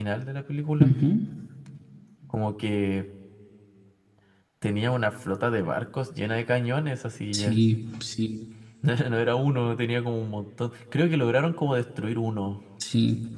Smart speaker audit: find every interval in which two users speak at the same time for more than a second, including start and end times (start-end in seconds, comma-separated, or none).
none